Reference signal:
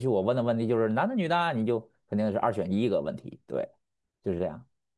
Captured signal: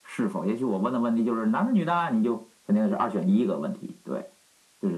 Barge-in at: none

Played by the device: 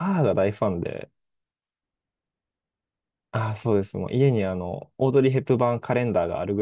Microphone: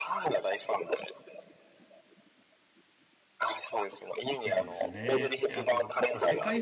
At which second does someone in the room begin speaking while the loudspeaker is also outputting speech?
4.4 s

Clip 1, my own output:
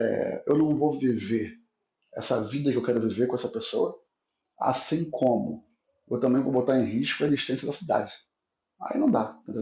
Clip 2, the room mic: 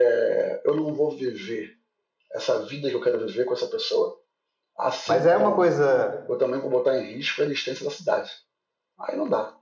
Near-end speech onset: 5.0 s

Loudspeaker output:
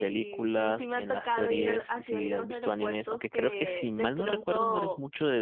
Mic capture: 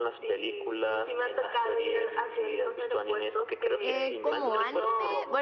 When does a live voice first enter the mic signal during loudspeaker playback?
3.8 s

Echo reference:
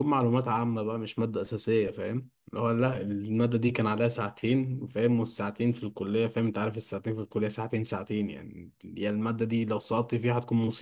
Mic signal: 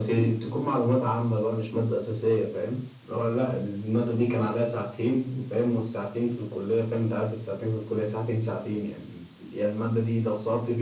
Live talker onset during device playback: none

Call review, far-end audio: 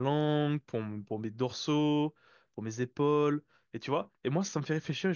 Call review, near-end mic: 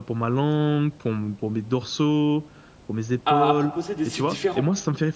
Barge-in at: 3.2 s

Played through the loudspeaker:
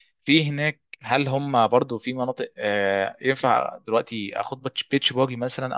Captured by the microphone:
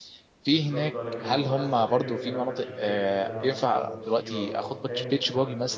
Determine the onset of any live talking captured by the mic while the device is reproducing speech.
0.5 s

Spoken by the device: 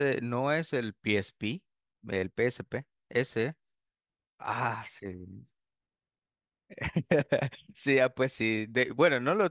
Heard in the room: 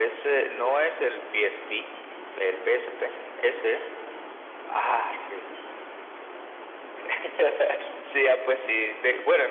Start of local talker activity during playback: none

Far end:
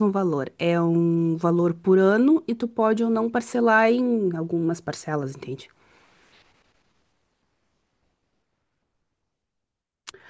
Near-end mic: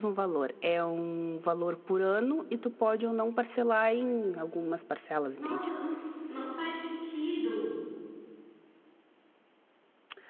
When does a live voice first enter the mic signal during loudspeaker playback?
5.3 s

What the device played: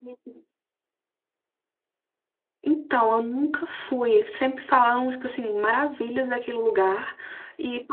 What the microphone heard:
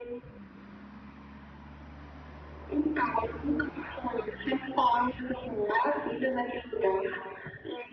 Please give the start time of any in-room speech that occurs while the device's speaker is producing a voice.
none

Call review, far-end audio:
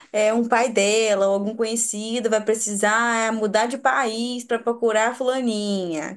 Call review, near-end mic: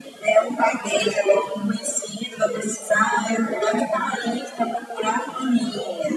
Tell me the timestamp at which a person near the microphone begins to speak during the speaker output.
none

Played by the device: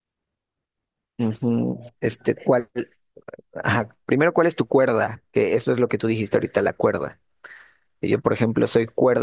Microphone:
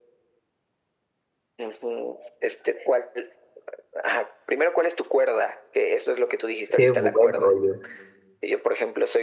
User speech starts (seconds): 6.7 s

